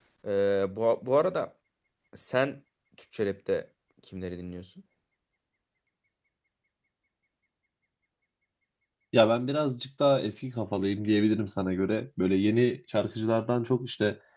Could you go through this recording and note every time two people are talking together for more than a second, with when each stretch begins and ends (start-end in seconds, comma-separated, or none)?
none